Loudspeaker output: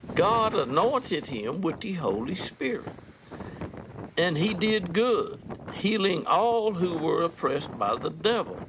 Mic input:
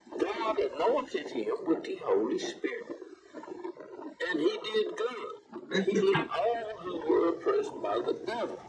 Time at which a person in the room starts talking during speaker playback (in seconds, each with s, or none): 5.7 s